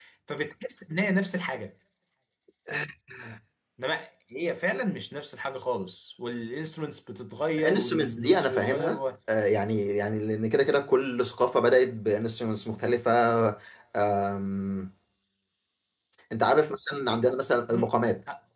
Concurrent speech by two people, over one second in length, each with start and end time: 7.6-9.0

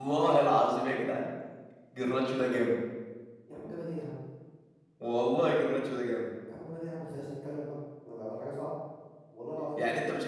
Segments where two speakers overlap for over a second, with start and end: none

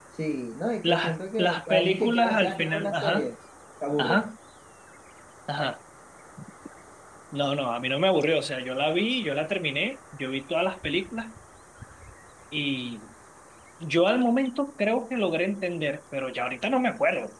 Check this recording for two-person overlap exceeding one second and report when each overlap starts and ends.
0.8-3.3

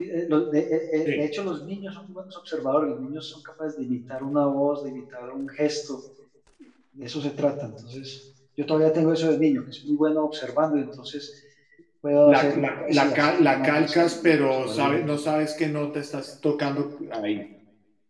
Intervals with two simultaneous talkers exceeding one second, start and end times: 12.3-15.0

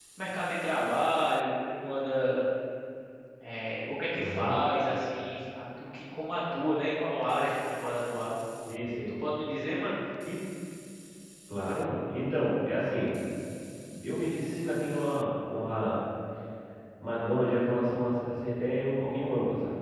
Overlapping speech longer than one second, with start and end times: none

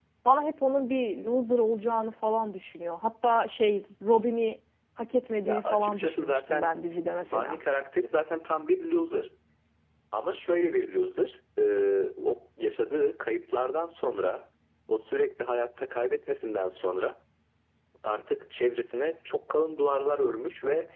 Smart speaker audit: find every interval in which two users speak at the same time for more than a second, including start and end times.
5.5-6.8

